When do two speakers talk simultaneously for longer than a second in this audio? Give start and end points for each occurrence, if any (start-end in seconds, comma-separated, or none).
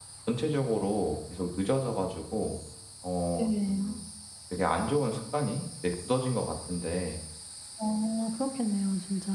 none